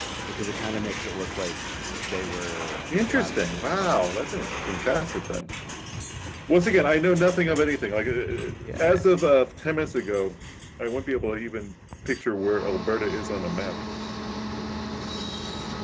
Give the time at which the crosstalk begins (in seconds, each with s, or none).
3.0 s